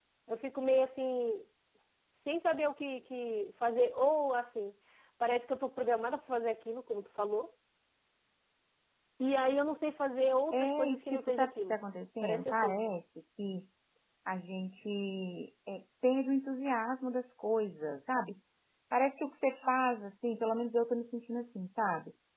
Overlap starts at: 10.5 s

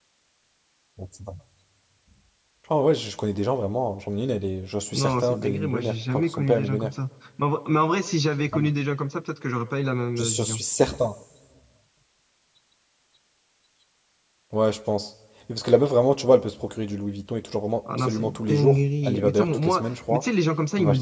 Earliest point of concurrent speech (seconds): 4.9 s

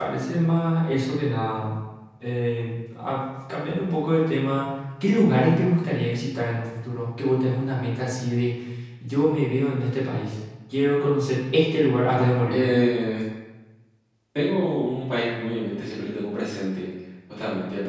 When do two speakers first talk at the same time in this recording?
none

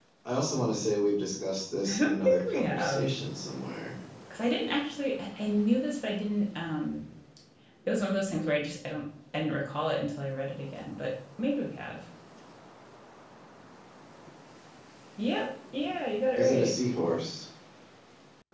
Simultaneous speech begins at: 1.9 s

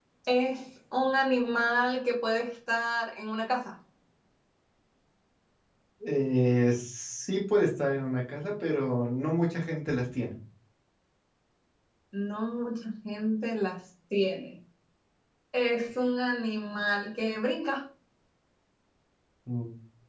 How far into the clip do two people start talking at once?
none

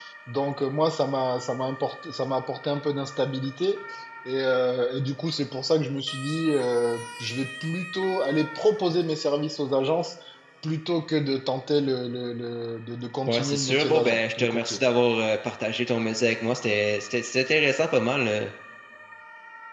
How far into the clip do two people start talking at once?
13.3 s

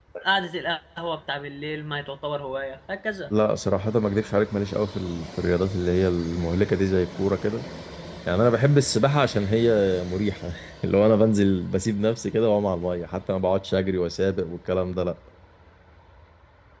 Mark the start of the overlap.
none

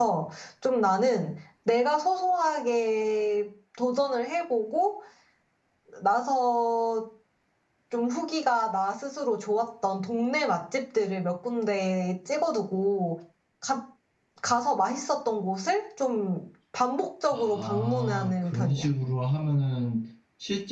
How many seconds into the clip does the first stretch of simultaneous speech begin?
17.3 s

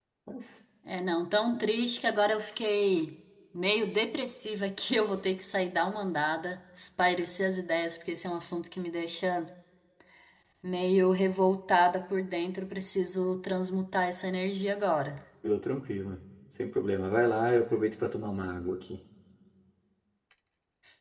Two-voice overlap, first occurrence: none

